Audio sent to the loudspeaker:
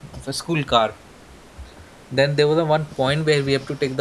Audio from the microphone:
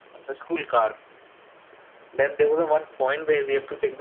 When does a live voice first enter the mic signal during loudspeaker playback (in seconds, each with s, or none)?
none